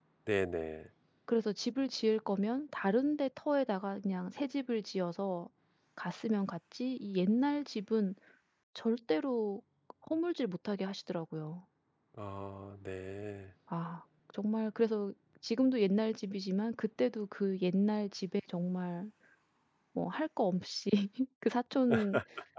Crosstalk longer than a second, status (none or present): none